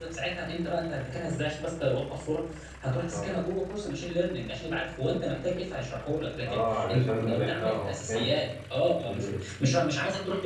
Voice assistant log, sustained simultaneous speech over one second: present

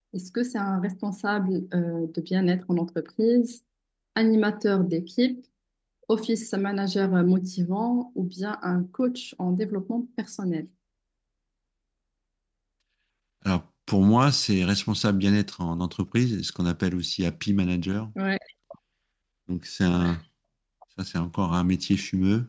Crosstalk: none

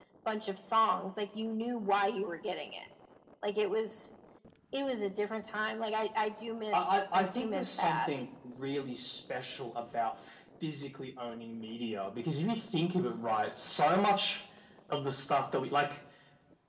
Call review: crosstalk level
present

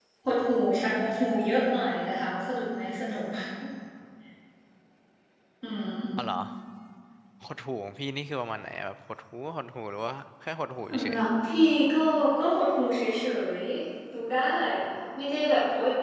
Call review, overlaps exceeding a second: none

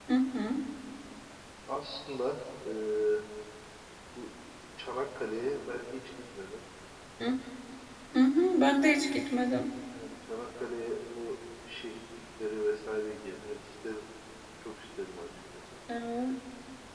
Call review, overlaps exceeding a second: none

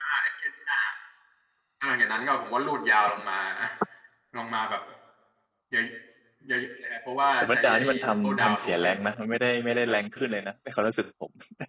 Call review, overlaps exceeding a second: present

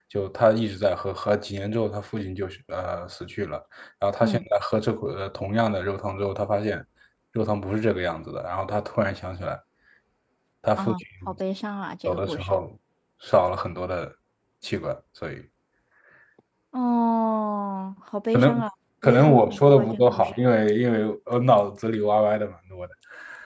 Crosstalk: present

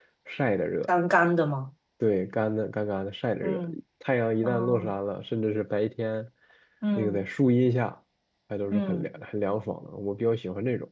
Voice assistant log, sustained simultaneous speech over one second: none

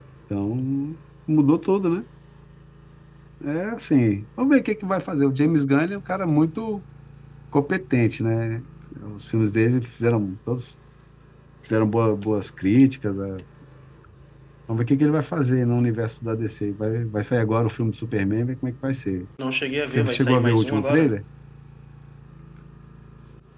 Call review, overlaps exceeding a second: present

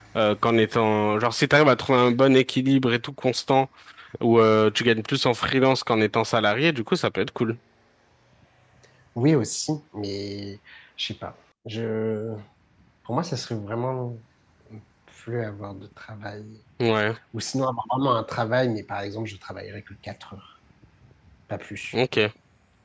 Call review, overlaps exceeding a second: none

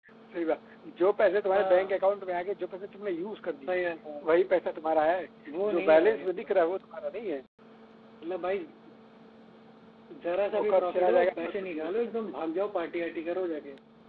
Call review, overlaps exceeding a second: present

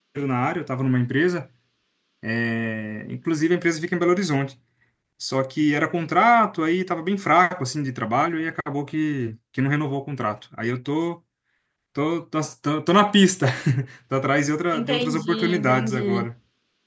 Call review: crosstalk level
present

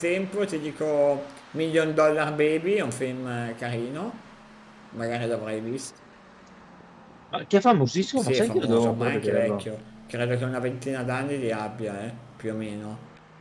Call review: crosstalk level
present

